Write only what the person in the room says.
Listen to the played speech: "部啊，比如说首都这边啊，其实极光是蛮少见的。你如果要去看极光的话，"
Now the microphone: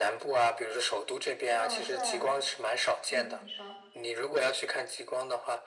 那在嗯，你说

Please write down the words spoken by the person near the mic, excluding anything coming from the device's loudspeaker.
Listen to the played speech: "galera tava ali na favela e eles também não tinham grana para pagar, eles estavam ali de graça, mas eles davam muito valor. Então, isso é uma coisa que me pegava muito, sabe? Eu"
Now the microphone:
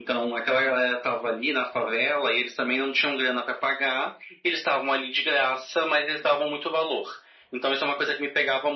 none

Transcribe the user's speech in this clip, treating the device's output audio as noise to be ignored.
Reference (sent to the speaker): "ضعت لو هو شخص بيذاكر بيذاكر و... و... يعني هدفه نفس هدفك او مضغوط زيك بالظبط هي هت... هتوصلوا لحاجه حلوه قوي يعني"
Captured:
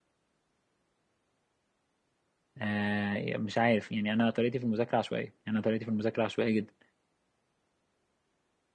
آه، مش عارف يعني انا طريقتي في المذاكره عشوائيه يعني انا طريقتي في المذاكره عشوائيه جدا

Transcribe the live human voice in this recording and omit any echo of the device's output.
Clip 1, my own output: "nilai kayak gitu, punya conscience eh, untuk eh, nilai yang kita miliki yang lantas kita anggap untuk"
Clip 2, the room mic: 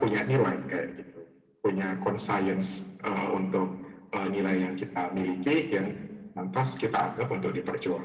none

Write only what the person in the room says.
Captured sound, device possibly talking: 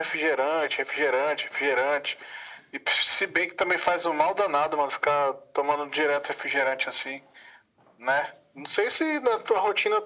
none

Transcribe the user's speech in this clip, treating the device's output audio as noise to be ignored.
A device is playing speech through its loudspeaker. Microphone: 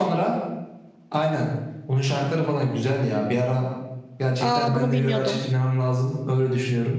Aa bunu bilmiyordum.

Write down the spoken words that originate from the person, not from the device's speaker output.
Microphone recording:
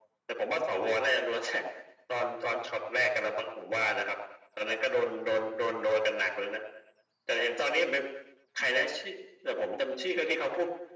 none

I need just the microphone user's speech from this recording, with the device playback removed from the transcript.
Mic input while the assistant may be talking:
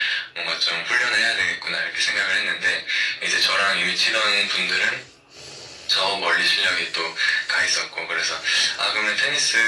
none

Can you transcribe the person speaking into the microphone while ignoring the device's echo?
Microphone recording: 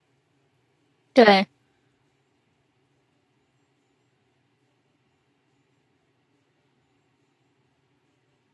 对。

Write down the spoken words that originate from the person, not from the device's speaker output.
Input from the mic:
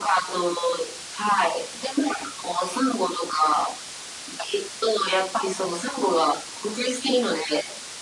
none

